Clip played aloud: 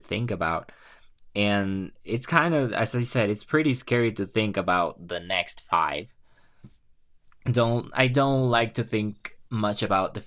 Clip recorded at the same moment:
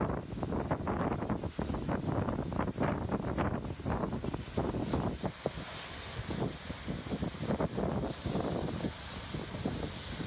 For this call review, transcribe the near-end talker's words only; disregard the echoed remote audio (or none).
none